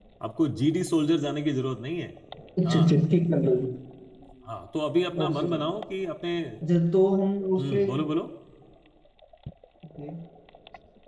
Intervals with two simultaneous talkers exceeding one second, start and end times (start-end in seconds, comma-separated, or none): none